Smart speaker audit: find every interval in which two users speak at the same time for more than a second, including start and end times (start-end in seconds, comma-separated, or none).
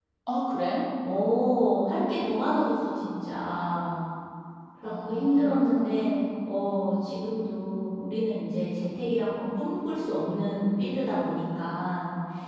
4.8-6.2